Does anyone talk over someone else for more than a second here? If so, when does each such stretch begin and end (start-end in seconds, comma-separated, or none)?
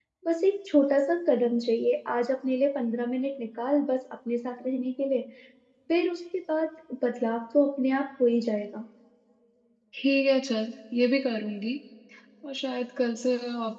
none